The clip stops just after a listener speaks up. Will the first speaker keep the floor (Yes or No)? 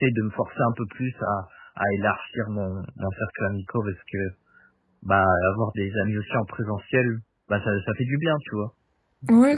No